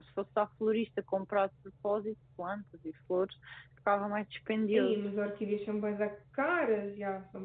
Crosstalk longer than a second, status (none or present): none